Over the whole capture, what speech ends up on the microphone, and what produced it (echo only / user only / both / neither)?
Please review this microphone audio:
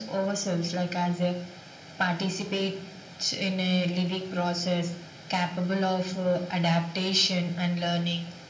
echo only